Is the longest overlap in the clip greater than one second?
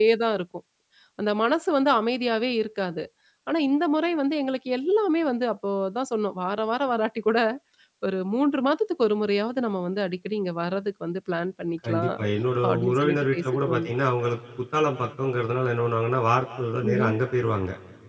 Yes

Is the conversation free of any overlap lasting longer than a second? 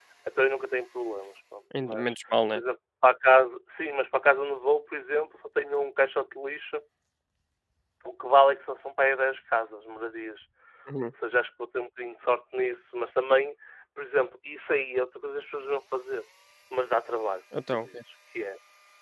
Yes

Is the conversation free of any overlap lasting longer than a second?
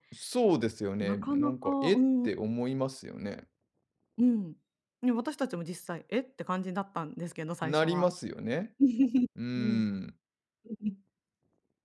No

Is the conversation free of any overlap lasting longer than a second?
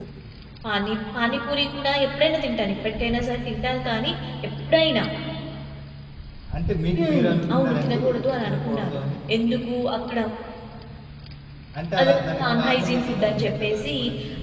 No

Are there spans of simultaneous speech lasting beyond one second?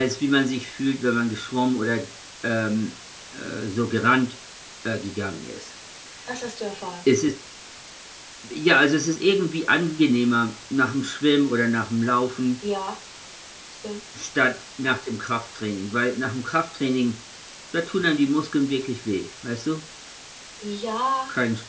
No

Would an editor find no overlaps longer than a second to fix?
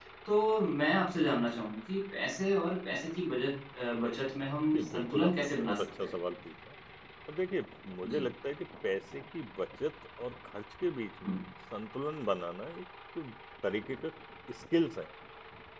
No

